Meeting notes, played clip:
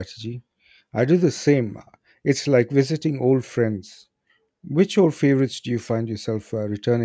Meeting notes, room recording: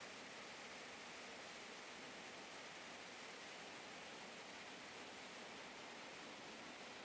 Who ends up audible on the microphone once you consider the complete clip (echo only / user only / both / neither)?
neither